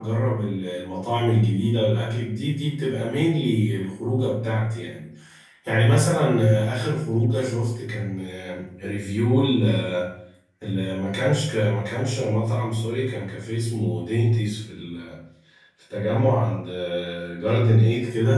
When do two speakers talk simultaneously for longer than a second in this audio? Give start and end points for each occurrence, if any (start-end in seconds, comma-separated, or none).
none